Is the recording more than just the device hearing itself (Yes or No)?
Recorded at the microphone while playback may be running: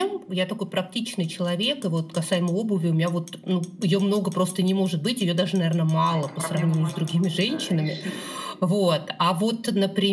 Yes